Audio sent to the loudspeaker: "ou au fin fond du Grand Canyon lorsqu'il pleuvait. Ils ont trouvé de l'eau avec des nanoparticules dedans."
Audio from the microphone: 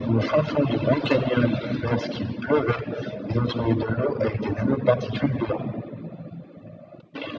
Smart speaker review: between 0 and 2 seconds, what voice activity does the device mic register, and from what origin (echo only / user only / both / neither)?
echo only